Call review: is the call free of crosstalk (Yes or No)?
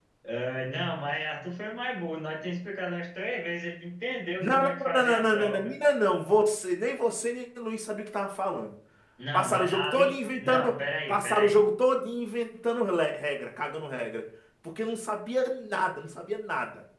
No